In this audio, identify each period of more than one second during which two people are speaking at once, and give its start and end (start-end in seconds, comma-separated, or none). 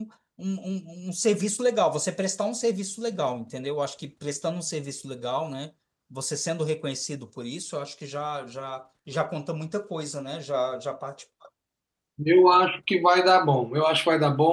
none